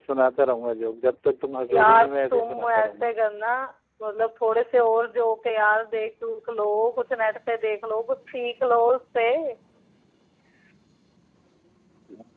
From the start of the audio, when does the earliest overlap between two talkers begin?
1.7 s

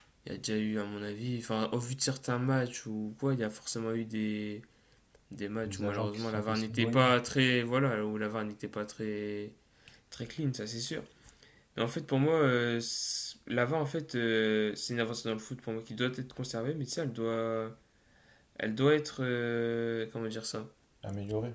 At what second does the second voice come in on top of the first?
5.6 s

